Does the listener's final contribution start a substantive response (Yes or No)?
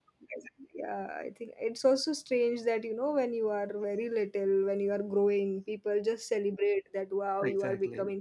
No